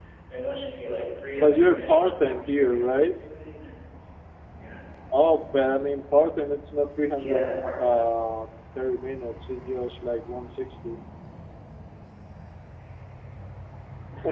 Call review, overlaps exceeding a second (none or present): present